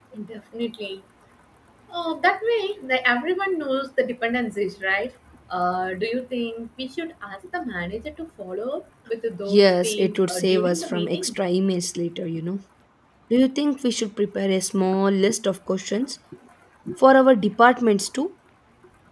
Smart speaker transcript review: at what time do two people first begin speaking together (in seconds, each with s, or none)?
9.5 s